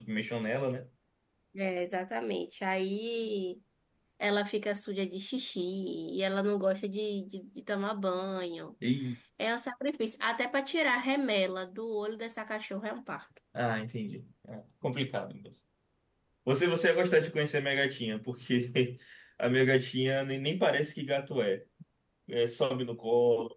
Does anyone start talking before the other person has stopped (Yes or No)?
No